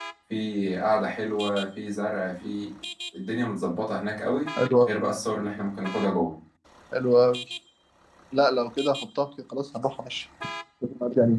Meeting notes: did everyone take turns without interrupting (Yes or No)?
Yes